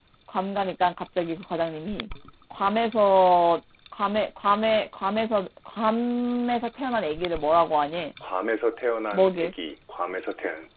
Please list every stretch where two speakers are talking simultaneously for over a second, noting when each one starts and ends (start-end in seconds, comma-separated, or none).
none